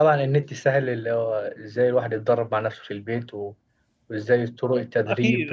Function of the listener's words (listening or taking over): taking over